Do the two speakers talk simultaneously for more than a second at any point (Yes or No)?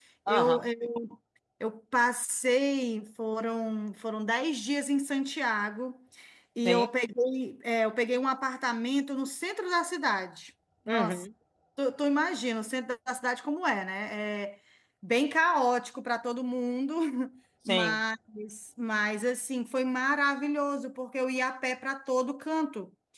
No